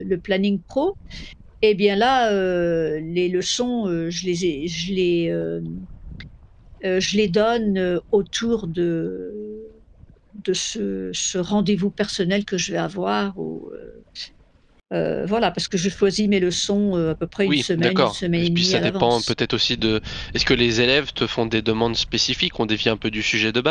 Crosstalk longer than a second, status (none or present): present